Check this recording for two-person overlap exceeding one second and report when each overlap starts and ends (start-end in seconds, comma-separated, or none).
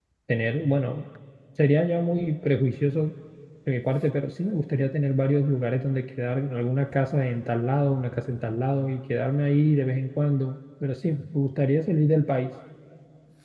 none